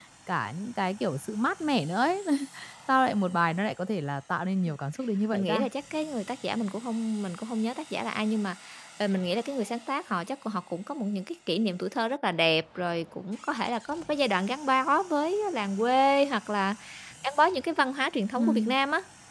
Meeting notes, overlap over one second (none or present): none